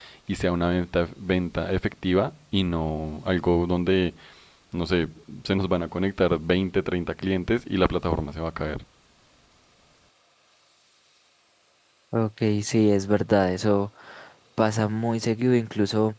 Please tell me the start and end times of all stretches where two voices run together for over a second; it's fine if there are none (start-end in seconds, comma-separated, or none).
none